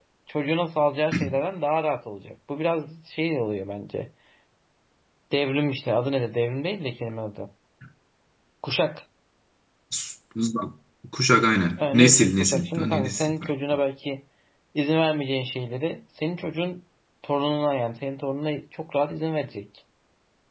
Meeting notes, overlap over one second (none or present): present